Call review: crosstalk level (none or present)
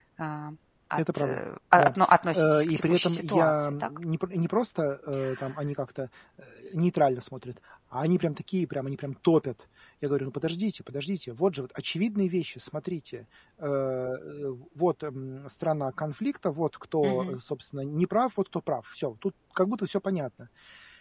present